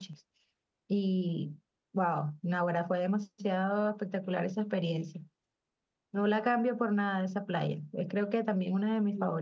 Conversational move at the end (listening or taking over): taking over